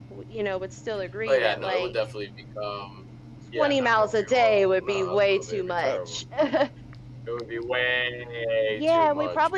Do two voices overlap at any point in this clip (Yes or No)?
Yes